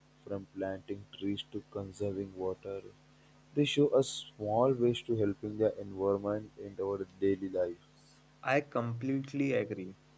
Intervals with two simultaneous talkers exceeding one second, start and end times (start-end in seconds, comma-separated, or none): none